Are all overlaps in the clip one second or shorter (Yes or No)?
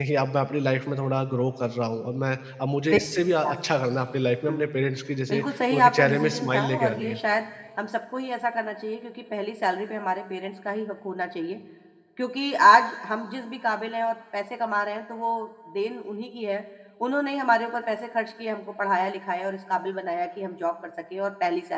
No